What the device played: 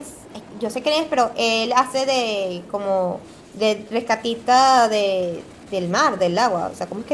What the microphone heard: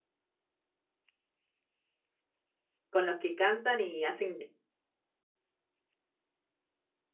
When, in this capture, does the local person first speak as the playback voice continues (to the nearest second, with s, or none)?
3 s